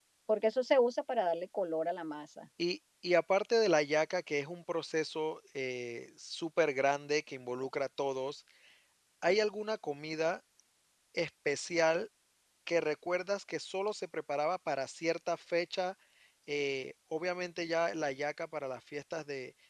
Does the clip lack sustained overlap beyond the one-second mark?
Yes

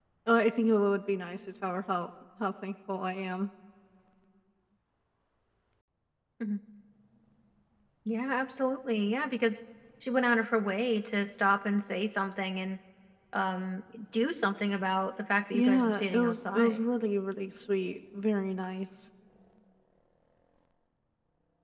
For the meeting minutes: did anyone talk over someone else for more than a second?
Yes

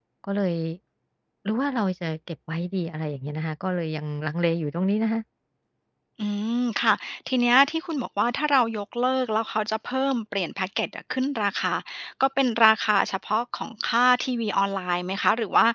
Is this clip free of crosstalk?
Yes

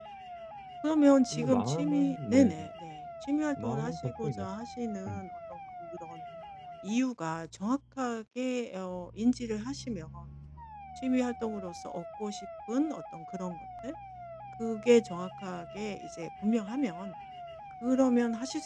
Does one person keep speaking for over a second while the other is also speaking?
Yes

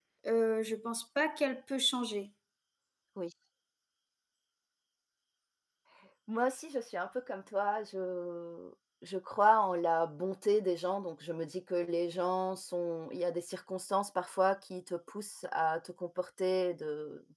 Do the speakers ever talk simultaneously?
No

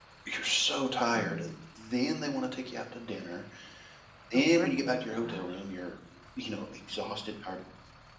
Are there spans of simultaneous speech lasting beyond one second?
Yes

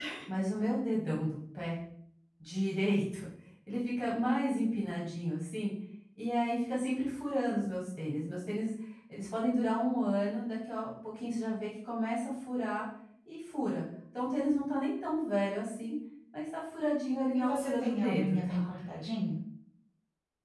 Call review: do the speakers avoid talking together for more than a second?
No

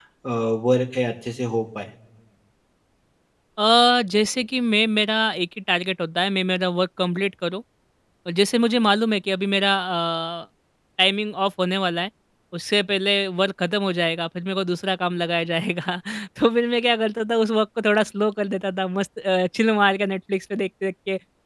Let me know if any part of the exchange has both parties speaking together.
No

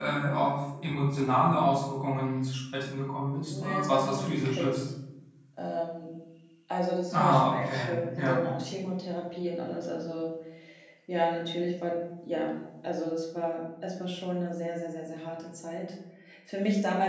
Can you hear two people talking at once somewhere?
Yes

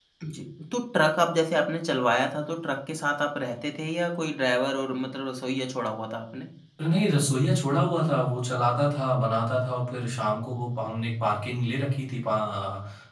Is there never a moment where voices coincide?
Yes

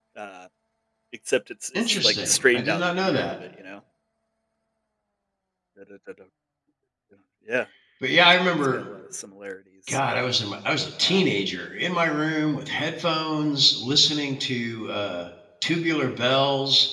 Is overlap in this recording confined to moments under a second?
No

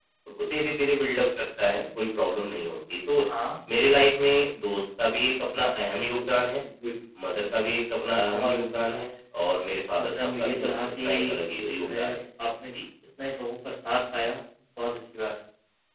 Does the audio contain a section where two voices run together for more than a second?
Yes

